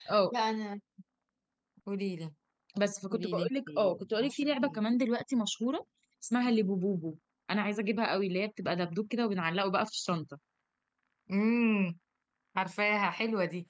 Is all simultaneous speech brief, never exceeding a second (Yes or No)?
No